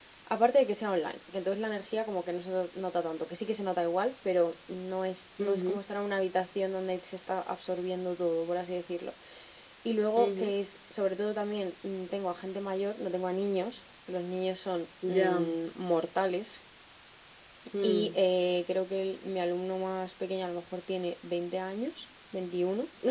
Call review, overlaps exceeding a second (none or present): none